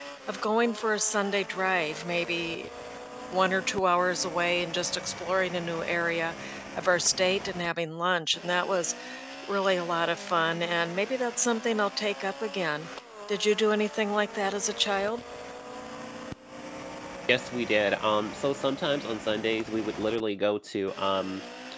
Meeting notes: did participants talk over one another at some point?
No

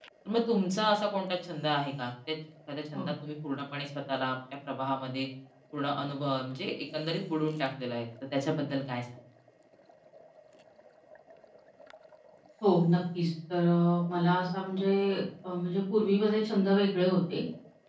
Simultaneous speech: No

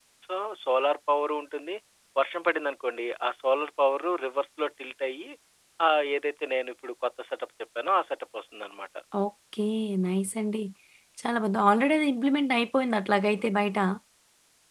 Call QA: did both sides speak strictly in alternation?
Yes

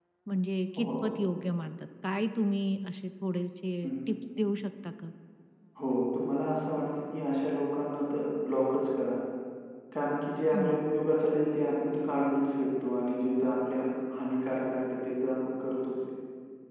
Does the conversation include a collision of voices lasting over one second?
No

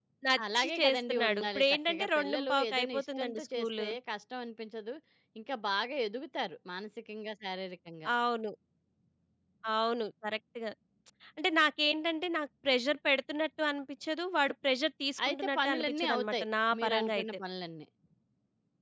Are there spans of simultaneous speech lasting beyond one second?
Yes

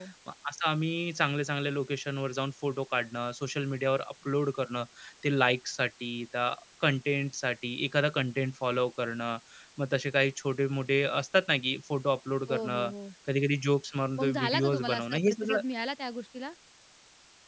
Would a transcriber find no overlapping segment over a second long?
No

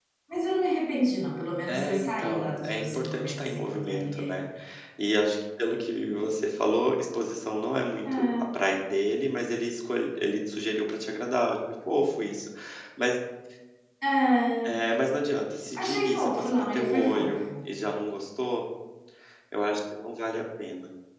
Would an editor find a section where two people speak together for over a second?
Yes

